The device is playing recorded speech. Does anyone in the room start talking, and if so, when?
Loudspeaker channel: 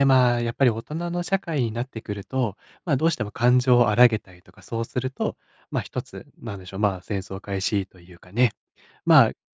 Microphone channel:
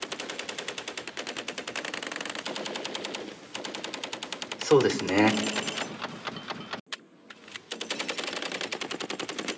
5 s

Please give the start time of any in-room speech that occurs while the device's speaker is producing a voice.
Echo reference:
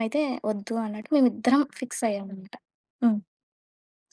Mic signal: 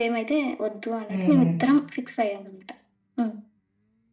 1 s

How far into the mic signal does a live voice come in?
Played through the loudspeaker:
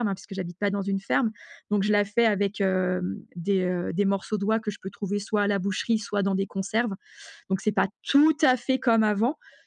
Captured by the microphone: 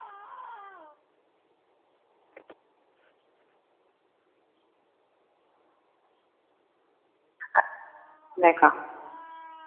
8 s

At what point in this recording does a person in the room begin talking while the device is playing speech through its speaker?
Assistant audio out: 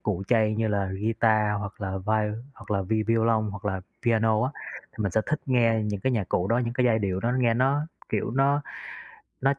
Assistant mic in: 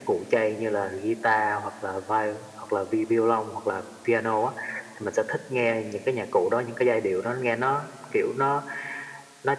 none

